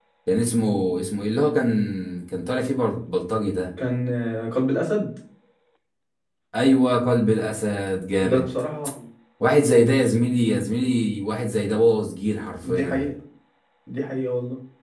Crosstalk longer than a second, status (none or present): none